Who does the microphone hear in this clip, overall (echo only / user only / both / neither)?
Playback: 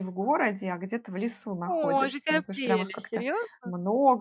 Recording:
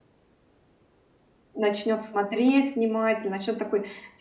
user only